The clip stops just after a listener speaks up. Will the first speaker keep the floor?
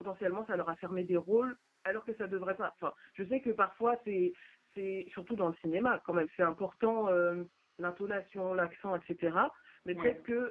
Yes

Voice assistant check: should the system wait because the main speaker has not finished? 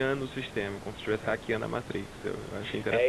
No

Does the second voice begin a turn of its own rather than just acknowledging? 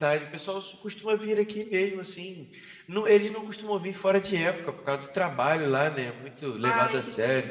No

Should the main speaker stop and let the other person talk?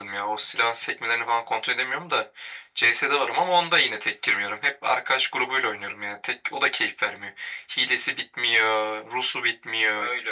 Yes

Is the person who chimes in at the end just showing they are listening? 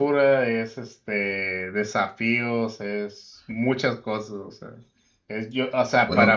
Yes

